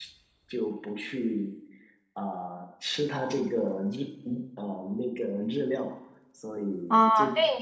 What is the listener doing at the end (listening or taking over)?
taking over